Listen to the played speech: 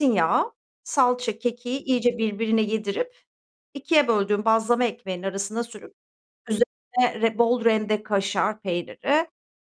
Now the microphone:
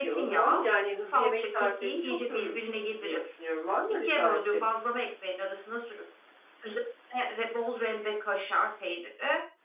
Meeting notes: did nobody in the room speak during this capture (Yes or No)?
No